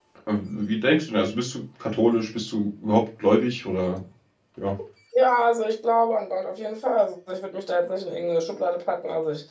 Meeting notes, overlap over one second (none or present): none